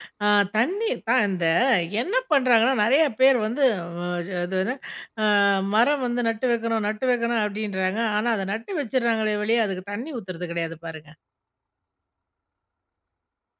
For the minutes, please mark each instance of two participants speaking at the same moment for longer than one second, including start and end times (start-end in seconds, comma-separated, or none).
none